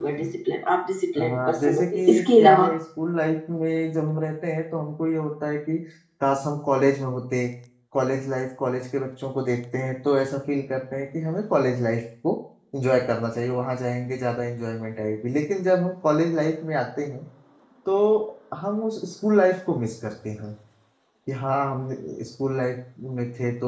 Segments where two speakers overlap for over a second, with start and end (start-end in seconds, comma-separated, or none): 1.2-2.7